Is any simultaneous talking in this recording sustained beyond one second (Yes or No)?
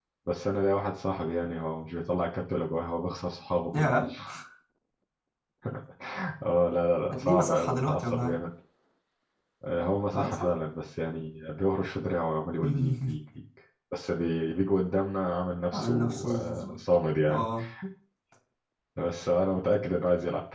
Yes